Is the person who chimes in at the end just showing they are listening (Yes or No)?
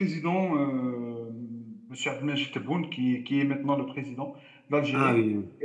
Yes